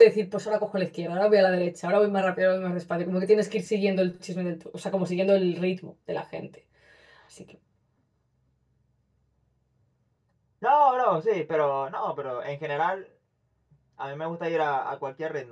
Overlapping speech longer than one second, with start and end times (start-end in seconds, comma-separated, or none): none